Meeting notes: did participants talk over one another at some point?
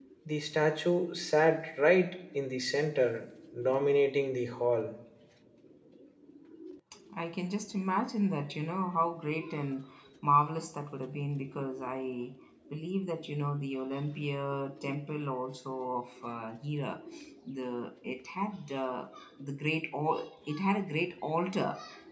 No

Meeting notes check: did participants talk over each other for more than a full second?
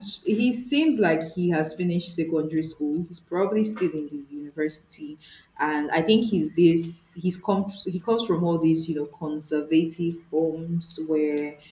No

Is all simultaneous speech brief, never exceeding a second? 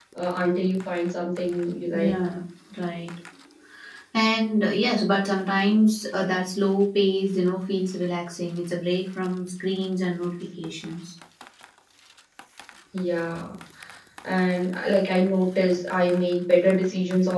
Yes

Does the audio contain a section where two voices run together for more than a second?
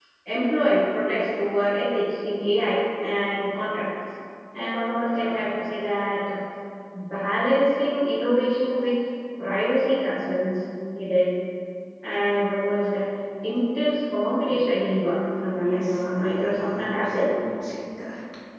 Yes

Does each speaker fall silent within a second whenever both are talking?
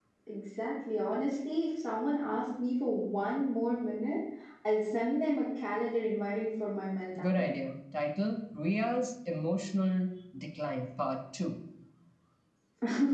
Yes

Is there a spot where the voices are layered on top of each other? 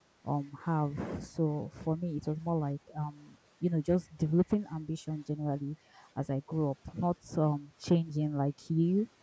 No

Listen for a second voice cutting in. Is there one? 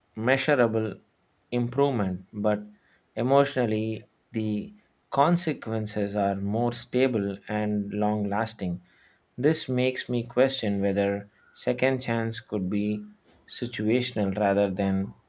No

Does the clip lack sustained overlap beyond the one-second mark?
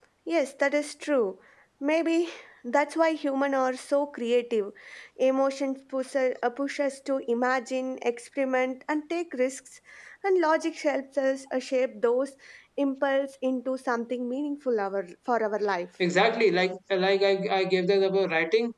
Yes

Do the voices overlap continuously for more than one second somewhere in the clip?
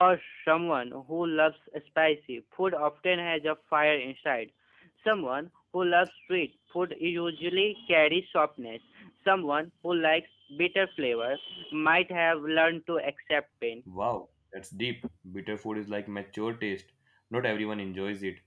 No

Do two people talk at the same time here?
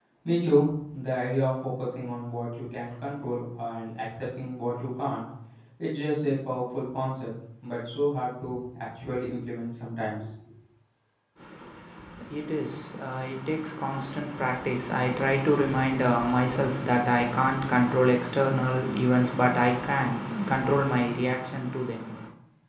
No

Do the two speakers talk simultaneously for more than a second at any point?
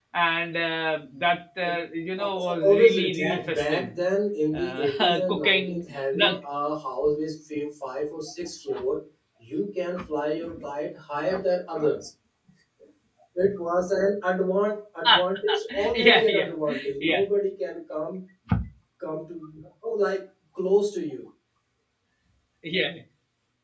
Yes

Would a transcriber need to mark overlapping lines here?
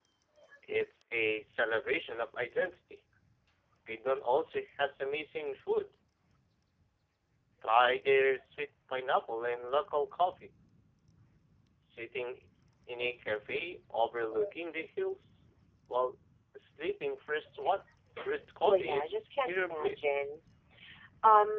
Yes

